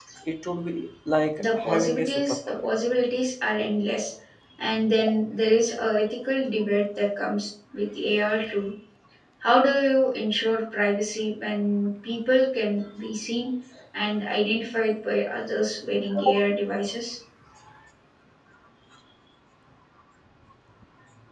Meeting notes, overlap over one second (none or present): present